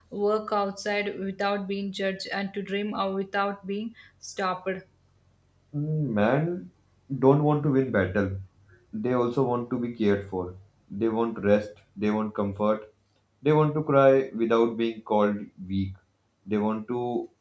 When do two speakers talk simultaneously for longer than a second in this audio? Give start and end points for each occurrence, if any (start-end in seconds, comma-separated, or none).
none